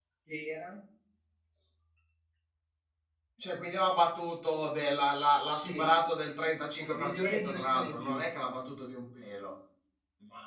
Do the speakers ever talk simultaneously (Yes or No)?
Yes